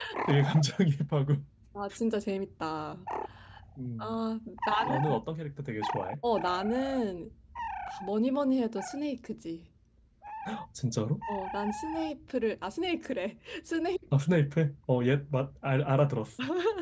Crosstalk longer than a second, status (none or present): none